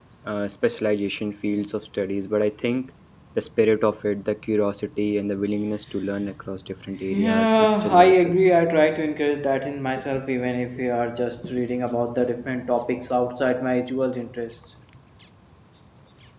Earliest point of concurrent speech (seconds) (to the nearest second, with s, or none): 7 s